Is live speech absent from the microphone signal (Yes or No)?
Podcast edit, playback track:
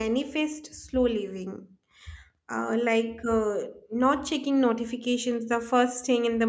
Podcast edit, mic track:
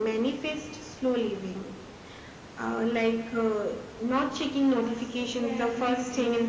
No